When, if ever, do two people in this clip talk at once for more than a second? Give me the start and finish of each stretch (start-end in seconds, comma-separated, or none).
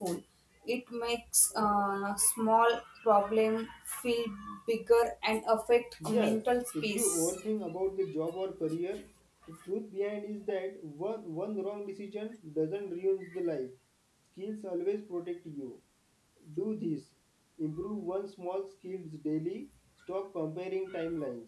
6.1-7.4